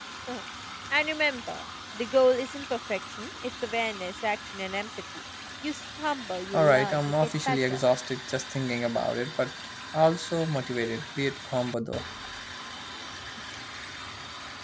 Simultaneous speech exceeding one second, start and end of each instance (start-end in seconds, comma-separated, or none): 6.5-7.8